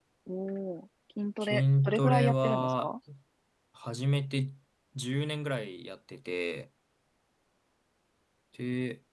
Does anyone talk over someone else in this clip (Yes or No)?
Yes